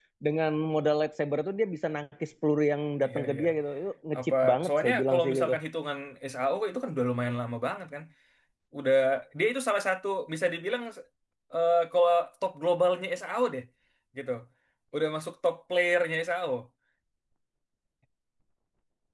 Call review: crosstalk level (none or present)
present